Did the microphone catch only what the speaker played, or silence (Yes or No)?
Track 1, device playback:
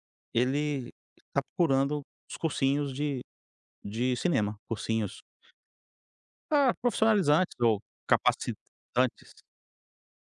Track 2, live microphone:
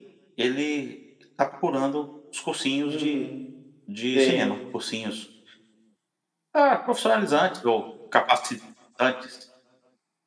No